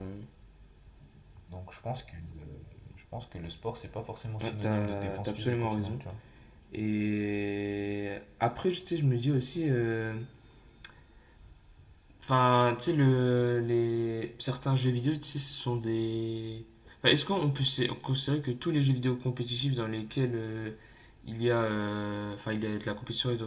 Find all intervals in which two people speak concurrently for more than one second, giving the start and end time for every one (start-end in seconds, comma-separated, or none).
4.4-6.0